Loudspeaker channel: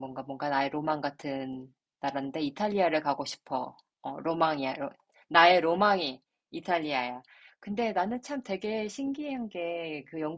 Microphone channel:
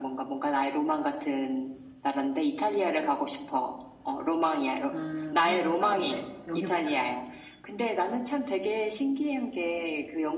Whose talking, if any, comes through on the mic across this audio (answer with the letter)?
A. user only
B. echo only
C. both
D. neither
C